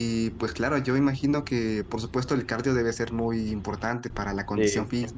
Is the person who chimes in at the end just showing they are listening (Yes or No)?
Yes